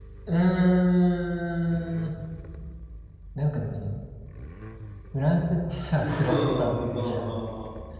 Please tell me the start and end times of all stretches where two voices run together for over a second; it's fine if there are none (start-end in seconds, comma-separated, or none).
6.0-7.3